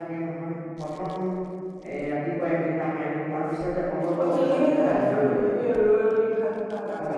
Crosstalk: present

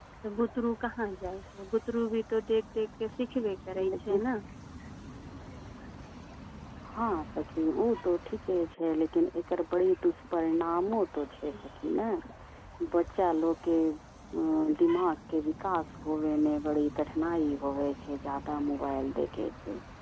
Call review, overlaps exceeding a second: none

